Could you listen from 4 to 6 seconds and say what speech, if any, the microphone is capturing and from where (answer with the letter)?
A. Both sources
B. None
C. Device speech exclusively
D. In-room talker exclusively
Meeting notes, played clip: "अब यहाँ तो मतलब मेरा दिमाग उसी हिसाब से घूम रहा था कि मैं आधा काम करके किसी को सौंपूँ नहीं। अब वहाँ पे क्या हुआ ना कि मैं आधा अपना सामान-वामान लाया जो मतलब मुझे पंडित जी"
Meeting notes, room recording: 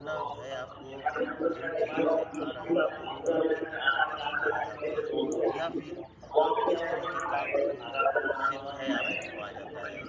A